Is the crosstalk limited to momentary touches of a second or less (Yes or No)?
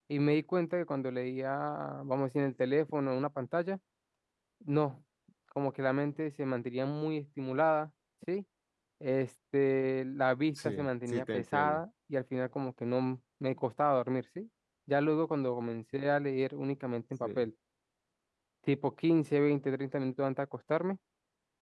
No